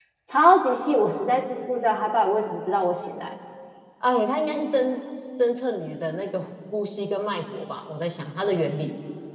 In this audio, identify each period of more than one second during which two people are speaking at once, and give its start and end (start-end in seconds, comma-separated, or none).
none